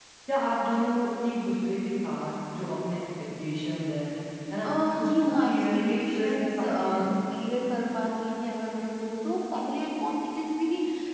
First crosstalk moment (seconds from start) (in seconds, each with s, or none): 5.0 s